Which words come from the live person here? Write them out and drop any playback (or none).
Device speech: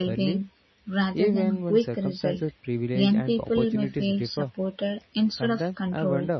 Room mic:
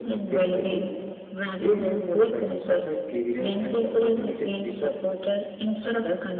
none